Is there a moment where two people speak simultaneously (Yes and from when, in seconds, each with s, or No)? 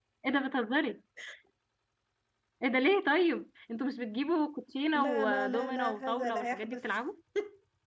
Yes, from 4.9 s